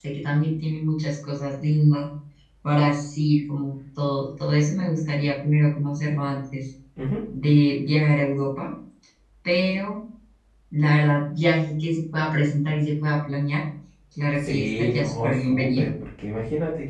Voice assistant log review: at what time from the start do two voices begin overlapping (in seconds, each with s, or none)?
14.3 s